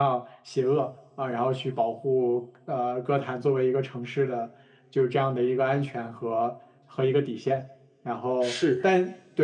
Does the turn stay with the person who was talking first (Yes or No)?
Yes